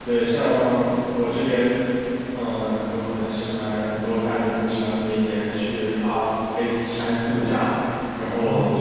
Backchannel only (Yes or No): Yes